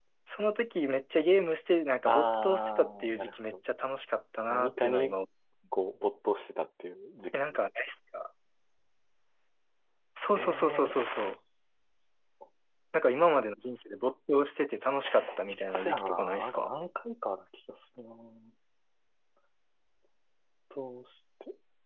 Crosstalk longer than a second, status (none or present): present